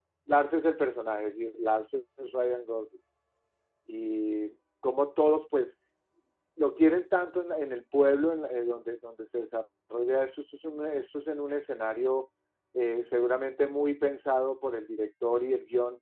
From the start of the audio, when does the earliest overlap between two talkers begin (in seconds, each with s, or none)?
none